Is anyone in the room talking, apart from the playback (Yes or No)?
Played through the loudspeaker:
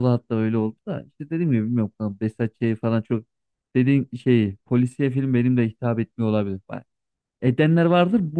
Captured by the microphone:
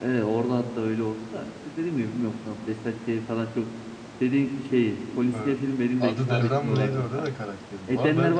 Yes